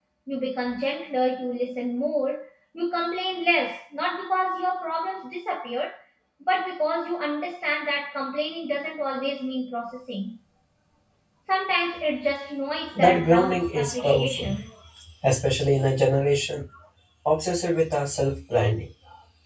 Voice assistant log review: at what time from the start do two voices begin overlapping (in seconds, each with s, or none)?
13.0 s